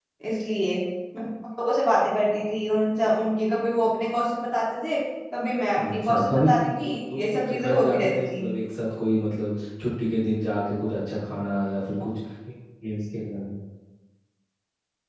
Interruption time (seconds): 6 s

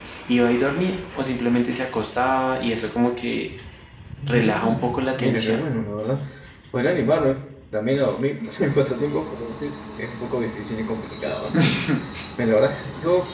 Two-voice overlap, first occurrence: 4 s

